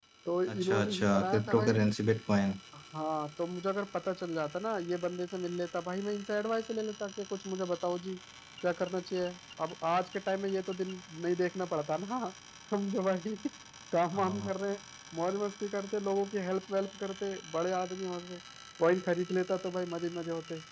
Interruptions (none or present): present